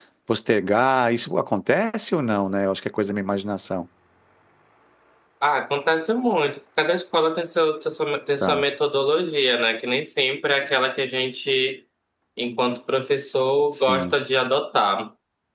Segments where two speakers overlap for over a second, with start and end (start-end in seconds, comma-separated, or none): none